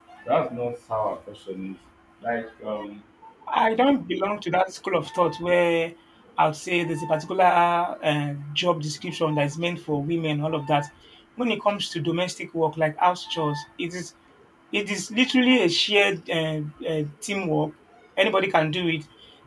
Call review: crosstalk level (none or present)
none